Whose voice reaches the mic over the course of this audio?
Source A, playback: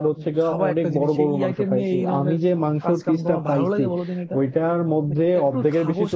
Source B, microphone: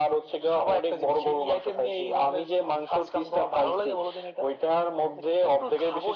echo only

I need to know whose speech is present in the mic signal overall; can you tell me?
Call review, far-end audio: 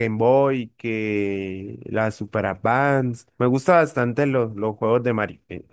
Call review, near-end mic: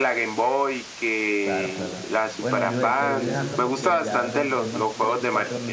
both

